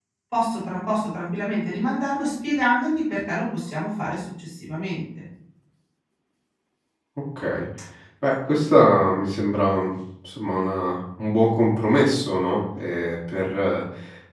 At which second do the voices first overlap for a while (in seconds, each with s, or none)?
none